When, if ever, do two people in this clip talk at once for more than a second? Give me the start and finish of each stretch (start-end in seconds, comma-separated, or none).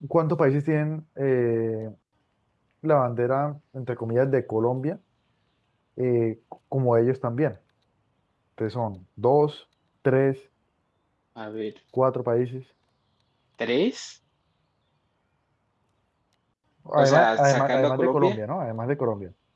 17.0-18.4